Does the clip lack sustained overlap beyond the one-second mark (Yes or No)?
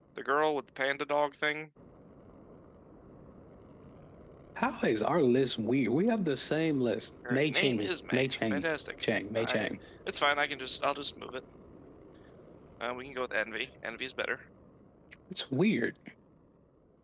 No